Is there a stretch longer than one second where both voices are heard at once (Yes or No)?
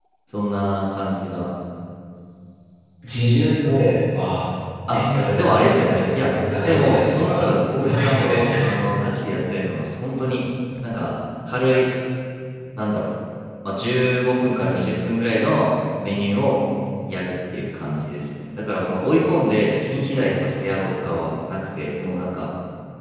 Yes